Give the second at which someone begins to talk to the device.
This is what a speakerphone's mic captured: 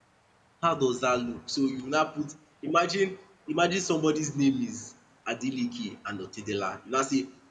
0.6 s

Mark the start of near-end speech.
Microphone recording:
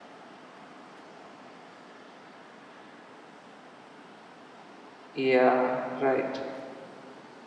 5.1 s

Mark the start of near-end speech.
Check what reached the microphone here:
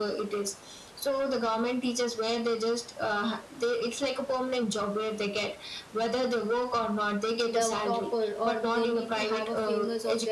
7.4 s

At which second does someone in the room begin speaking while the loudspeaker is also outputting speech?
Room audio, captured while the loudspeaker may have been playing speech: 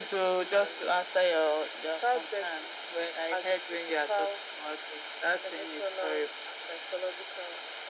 none

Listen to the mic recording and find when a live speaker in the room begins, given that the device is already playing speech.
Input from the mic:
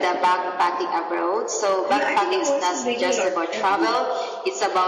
1.9 s

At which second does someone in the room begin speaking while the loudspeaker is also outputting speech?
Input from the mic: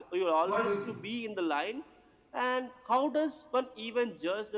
0.4 s

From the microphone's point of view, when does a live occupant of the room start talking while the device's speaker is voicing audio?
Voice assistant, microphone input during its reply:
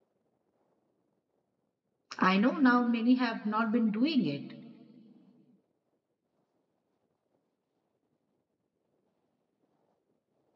2.2 s

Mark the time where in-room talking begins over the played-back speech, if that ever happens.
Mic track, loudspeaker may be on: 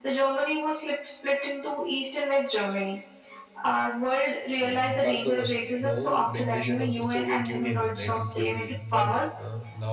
4.4 s

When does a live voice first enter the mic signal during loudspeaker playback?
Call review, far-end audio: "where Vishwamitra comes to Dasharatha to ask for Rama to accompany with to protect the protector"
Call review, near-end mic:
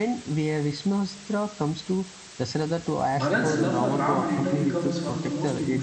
3.2 s

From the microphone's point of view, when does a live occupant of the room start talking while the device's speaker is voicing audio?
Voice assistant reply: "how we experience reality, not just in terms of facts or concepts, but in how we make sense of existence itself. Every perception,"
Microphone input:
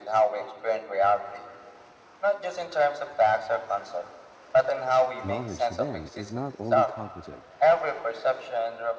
5.2 s

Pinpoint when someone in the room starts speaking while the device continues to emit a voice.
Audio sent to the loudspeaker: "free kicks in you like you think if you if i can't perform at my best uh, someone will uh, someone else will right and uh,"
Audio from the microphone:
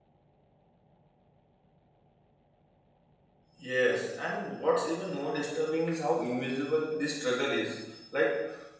3.6 s

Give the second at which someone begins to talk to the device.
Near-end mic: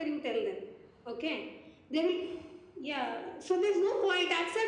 none

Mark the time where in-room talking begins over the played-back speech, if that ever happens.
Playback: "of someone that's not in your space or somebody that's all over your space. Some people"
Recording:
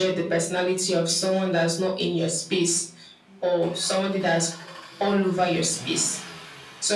none

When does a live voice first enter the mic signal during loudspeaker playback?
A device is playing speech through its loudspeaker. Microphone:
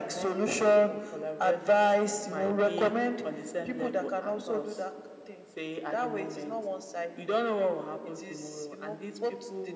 none

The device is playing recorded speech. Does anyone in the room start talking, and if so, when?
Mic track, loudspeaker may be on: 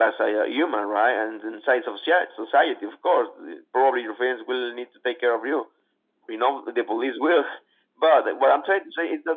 none

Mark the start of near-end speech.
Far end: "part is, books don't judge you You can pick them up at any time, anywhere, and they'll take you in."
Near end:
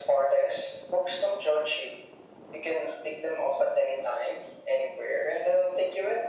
none

